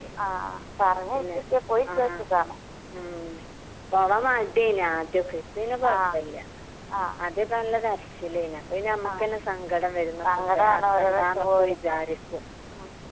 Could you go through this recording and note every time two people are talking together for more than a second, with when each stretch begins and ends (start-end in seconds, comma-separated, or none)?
10.3-12.0